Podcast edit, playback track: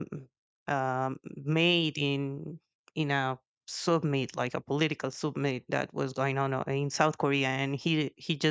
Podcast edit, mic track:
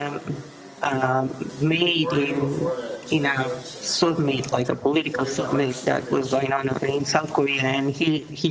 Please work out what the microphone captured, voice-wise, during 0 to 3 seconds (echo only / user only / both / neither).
both